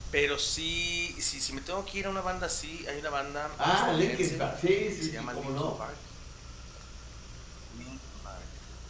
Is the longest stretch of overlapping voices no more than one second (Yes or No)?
No